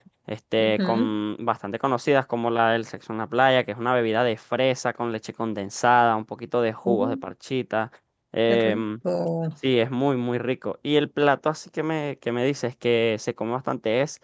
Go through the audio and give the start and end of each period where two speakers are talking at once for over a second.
none

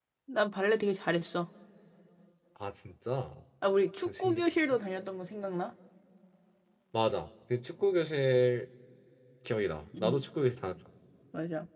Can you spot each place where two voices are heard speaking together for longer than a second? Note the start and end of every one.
none

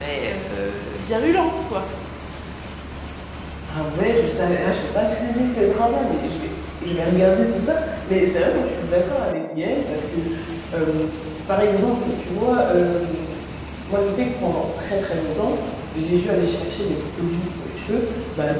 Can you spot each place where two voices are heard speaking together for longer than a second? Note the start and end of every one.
none

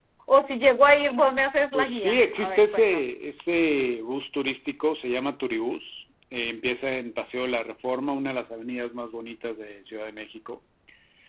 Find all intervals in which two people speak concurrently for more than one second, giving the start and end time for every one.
1.7-3.0

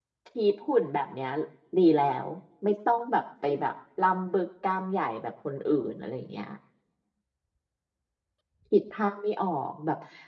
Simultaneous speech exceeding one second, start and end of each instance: none

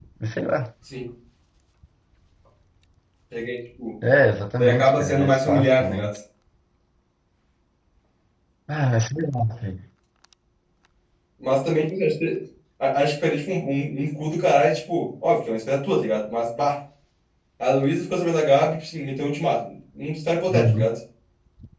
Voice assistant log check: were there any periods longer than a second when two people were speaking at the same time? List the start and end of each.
4.6-6.1

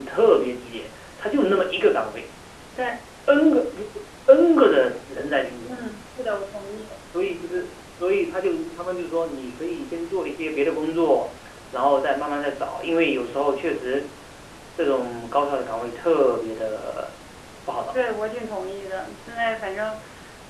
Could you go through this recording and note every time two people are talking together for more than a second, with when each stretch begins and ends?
none

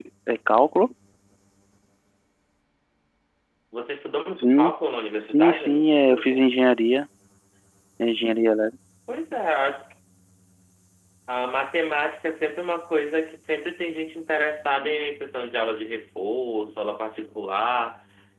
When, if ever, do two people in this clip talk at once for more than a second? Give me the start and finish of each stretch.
5.2-6.4

